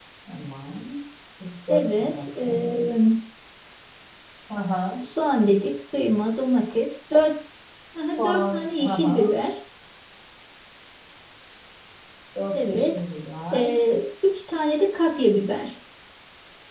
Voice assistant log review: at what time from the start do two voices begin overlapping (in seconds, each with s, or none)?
1.7 s